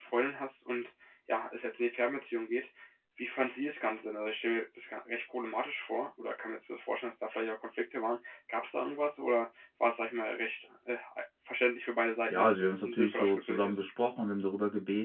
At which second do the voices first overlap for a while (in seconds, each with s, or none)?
12.3 s